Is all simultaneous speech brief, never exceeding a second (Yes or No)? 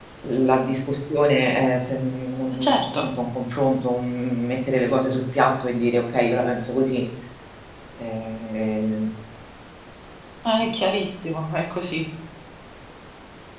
Yes